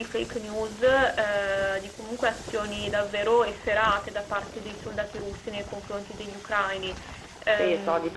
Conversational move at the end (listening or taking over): taking over